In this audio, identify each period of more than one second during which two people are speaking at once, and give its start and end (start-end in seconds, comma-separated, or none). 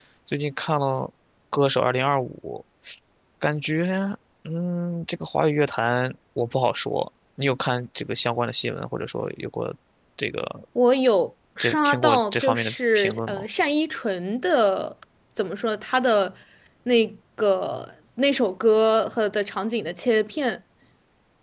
11.6-13.4